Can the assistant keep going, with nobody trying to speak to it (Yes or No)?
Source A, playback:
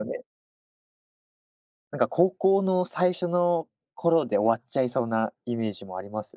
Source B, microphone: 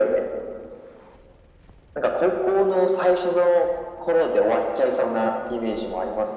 Yes